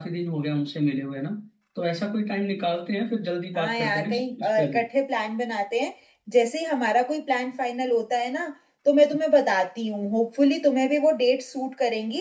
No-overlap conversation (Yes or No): No